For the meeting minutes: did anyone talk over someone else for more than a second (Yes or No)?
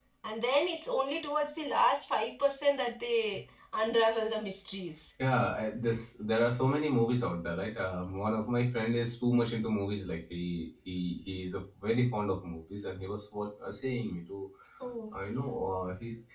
No